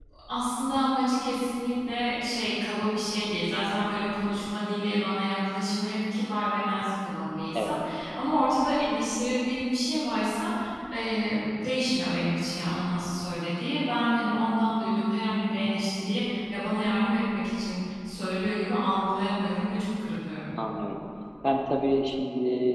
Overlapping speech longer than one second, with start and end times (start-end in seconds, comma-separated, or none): none